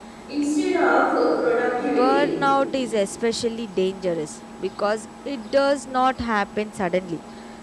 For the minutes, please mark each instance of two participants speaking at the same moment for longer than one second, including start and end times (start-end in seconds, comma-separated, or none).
none